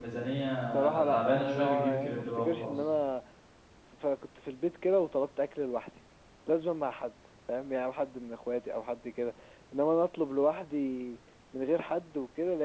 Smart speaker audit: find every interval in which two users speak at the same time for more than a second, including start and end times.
0.7-2.7

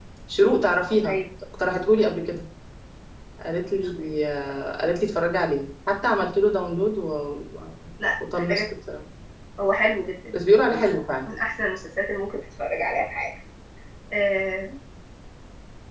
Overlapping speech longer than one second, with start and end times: none

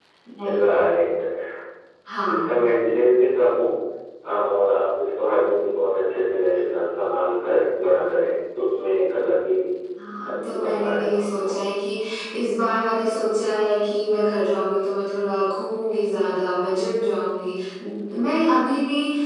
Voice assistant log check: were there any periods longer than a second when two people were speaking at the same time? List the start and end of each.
10.3-11.5

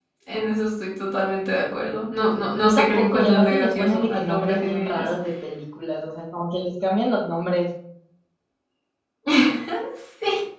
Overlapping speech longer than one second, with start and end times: 2.6-5.1

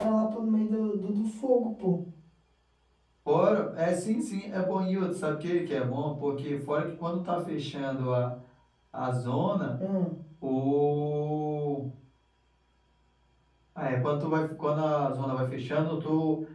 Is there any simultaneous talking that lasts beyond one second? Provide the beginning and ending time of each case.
none

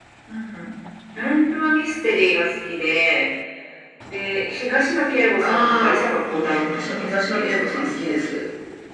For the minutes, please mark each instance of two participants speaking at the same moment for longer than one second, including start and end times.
5.4-7.8

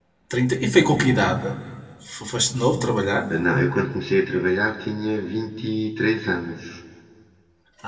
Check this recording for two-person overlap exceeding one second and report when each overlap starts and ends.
none

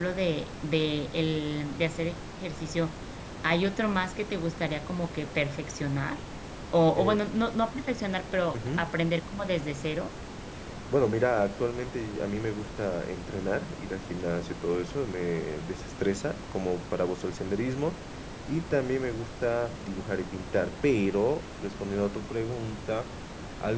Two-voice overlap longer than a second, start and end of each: none

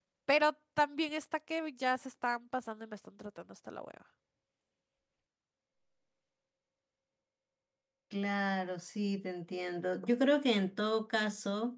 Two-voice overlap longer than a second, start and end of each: none

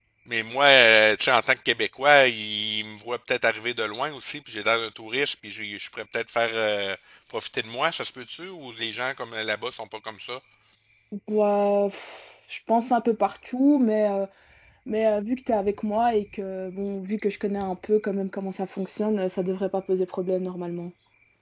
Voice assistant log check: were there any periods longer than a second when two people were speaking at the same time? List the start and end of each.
none

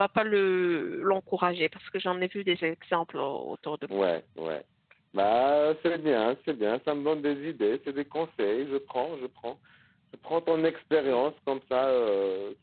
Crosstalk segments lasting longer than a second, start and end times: none

